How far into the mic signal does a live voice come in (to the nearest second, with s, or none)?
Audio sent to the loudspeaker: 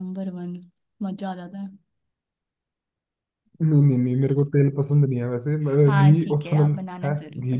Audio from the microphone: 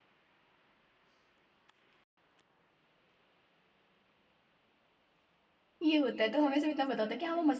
6 s